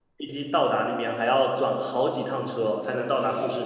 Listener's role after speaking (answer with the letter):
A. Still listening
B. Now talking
B